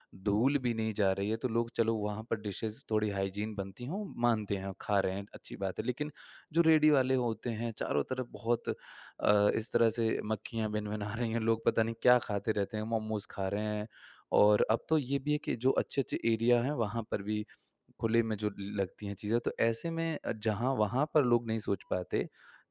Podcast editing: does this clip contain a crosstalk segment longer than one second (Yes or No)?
No